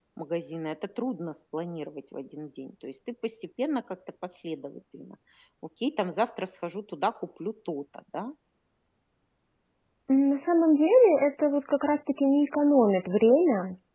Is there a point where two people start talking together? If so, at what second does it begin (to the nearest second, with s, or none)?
none